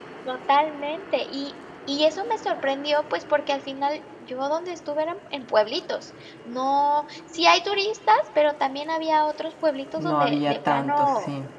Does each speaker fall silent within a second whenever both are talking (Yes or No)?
No